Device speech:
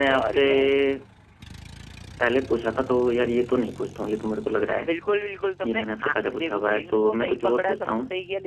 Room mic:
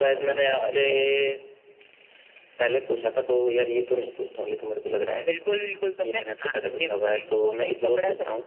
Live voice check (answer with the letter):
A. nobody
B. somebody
A